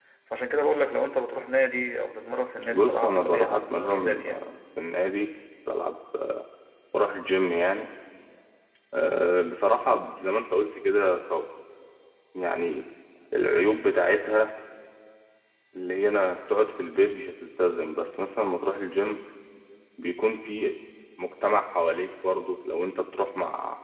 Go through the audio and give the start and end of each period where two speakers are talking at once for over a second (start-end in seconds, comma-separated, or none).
2.7-4.5